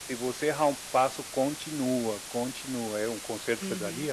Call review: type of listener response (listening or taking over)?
taking over